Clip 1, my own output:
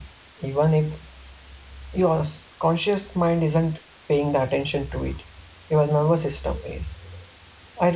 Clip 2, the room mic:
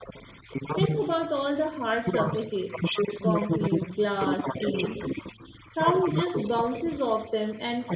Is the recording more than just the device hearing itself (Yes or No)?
Yes